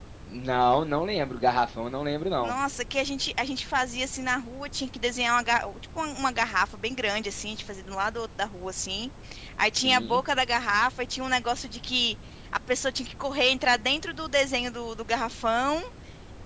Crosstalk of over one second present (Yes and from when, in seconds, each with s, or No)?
No